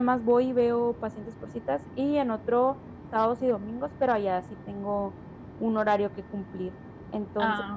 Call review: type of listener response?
listening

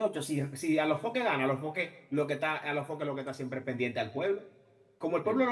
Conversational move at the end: listening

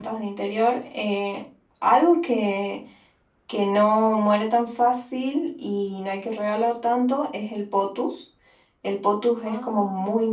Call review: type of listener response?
listening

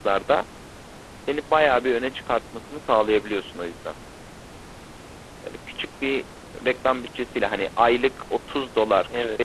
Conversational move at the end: listening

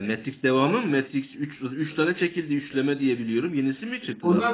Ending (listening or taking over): taking over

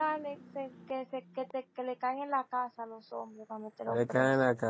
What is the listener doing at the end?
taking over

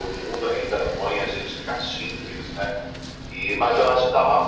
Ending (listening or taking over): listening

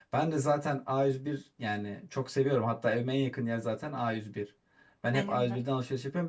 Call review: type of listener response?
listening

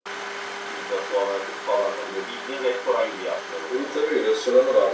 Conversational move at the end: taking over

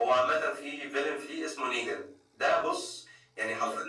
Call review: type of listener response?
listening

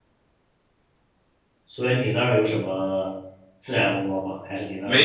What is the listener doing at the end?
taking over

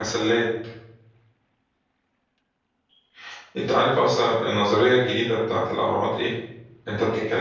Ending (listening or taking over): listening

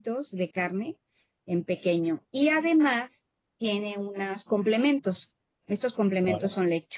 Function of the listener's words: listening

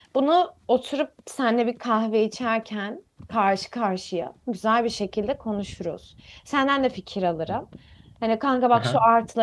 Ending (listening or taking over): listening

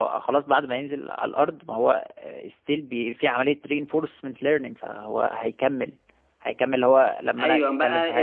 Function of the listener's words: taking over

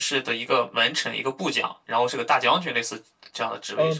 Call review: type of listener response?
taking over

